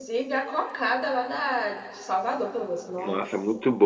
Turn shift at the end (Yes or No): Yes